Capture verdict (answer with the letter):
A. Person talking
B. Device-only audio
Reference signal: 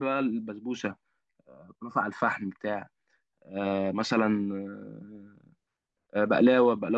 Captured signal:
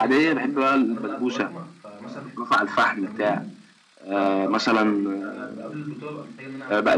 A